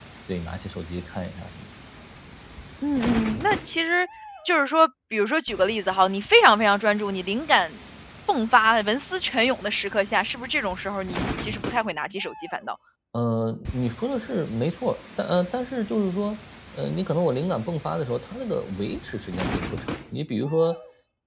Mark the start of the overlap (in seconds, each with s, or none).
none